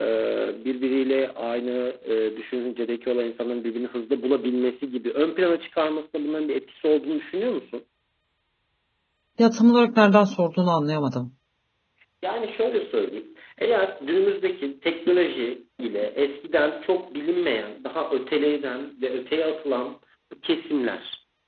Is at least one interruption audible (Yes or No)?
No